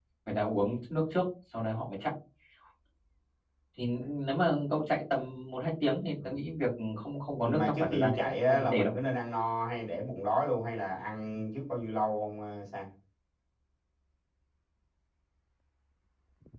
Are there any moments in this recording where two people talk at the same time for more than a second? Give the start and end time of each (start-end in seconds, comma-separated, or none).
7.5-8.9